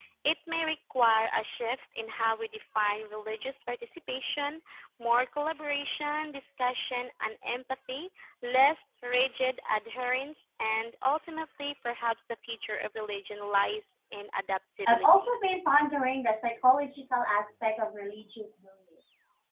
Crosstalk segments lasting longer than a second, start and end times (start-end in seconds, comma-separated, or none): none